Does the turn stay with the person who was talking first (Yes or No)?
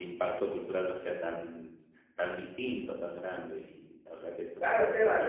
No